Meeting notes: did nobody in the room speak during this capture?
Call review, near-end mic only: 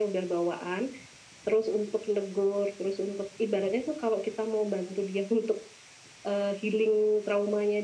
Yes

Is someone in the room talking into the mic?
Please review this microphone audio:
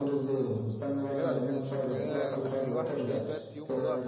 Yes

